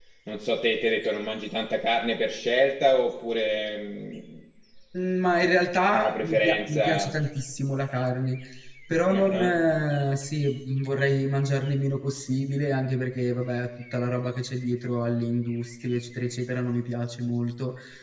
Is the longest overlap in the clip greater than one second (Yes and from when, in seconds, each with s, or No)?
Yes, from 5.9 s